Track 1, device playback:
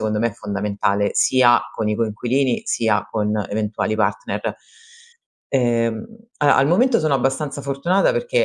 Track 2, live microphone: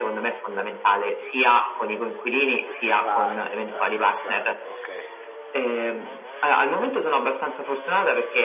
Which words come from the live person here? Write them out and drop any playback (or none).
Uhm, si fa senza senza okay.